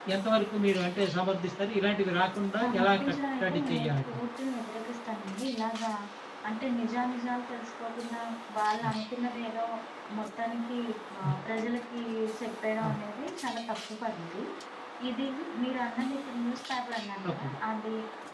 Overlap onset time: 3 s

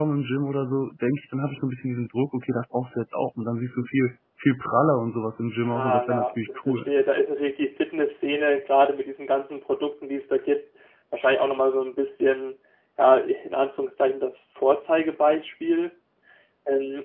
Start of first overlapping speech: 6 s

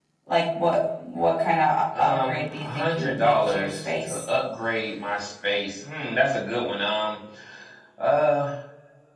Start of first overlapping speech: 2 s

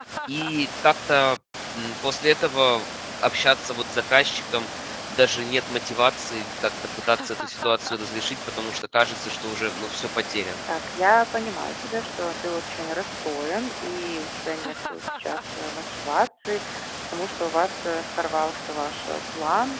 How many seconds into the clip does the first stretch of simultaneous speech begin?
none

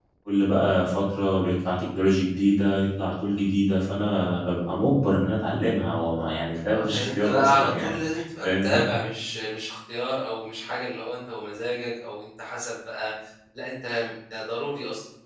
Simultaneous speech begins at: 7 s

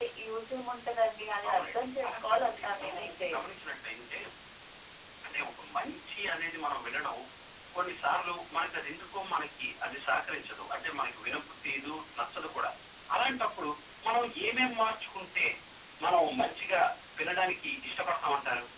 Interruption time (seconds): 1 s

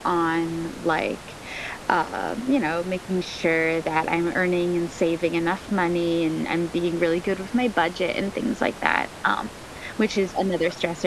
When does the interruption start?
none

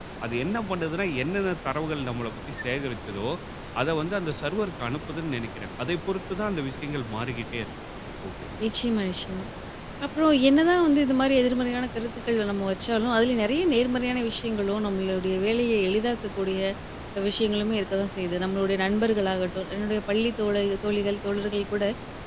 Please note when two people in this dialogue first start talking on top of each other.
none

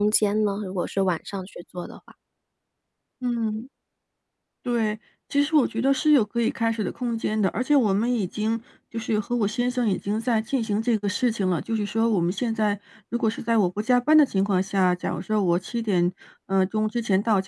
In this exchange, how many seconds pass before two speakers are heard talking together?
none

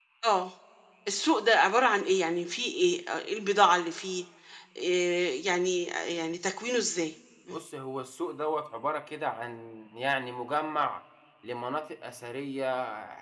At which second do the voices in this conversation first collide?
none

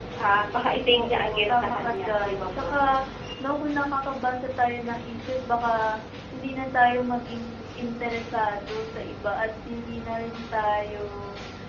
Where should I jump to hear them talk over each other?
1 s

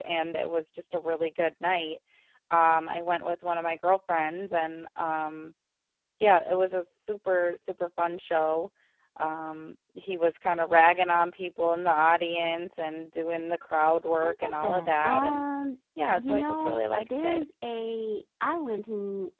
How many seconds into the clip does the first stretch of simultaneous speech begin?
14 s

